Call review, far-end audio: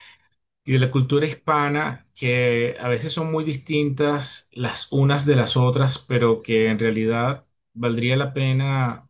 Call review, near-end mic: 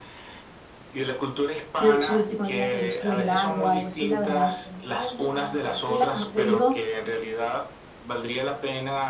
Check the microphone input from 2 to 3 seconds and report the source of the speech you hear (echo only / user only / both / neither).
both